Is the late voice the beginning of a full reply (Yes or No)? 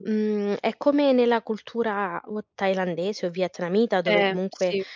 No